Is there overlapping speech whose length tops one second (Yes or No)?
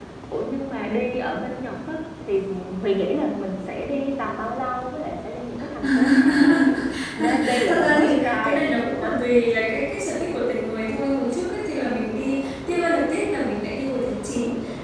Yes